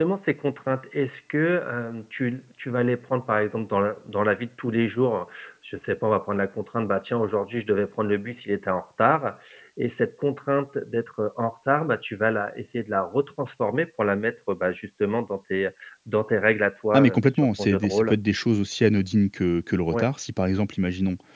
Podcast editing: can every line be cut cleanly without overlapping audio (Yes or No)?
No